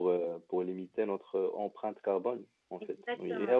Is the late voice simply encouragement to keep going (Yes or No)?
Yes